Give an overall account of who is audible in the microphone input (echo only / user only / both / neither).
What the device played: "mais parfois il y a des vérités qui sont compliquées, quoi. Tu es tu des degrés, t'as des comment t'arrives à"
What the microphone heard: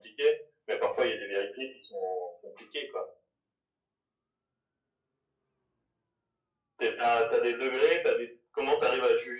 echo only